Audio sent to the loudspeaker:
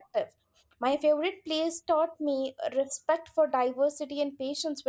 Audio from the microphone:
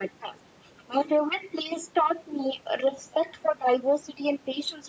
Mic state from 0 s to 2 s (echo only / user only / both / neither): echo only